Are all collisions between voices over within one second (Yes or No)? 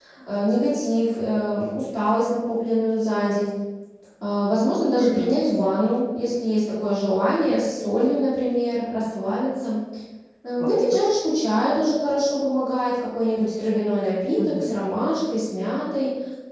Yes